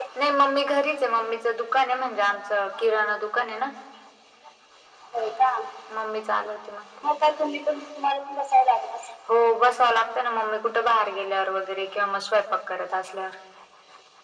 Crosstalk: none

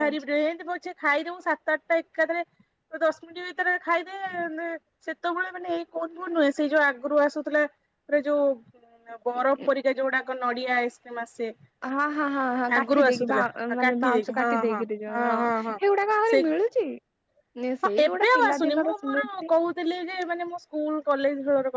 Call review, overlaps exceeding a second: present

